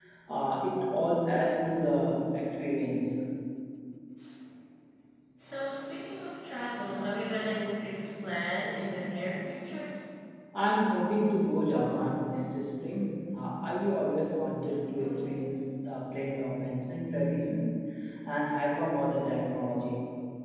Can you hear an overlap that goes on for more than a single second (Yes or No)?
No